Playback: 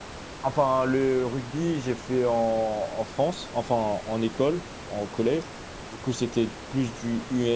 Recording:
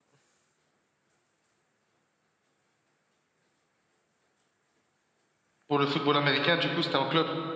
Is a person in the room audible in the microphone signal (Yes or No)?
Yes